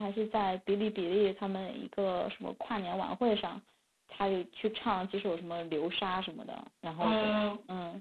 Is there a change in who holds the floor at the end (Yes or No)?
Yes